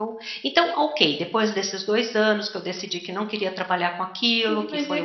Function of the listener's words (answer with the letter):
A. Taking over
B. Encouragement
A